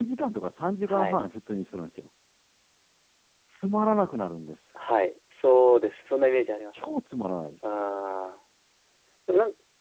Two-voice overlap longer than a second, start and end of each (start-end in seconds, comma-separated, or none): none